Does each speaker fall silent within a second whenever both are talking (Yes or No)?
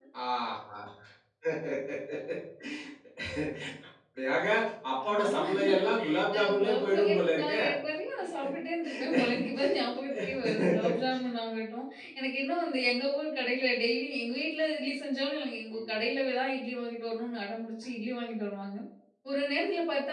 No